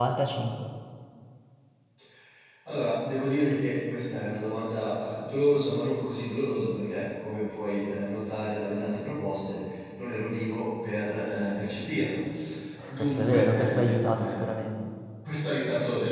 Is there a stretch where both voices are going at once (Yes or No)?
Yes